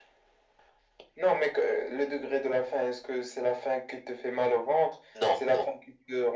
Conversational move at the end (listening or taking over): listening